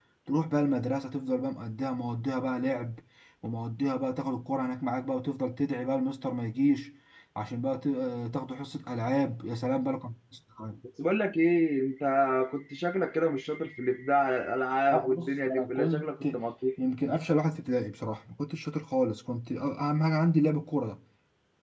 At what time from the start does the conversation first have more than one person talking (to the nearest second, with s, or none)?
15 s